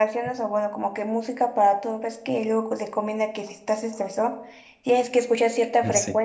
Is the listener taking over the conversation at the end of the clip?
No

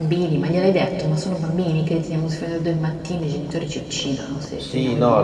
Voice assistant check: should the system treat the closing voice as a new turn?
Yes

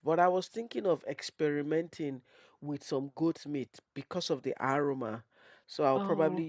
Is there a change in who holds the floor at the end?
No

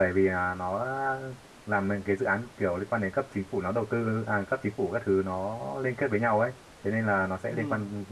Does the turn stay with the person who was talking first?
Yes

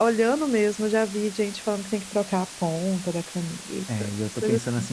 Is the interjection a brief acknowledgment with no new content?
No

